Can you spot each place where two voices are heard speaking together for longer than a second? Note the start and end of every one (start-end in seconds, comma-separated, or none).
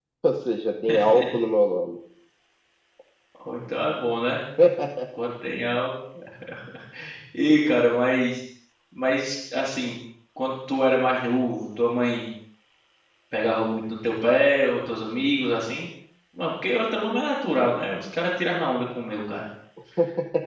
none